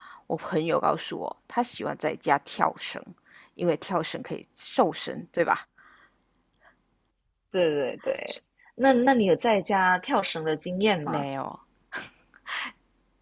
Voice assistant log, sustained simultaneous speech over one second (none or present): none